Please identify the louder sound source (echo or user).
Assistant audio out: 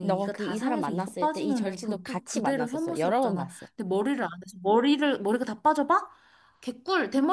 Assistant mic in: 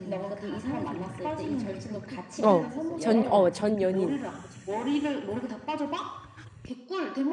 user